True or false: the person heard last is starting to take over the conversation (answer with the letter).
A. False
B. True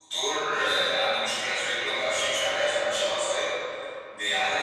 A